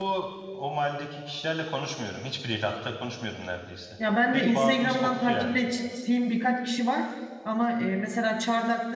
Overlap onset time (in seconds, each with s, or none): 4.3 s